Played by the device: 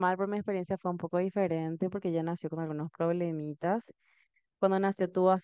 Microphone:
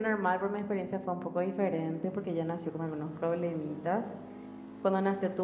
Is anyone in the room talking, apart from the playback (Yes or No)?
No